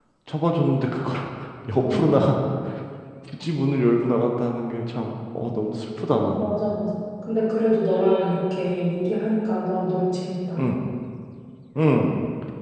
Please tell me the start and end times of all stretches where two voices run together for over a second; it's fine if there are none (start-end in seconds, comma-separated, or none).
none